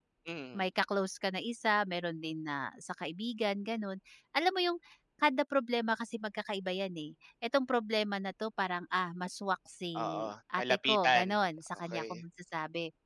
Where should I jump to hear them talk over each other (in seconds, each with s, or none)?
10.0 s